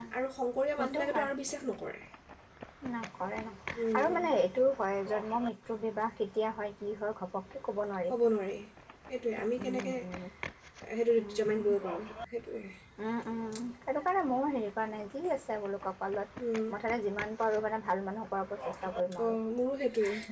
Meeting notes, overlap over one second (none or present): none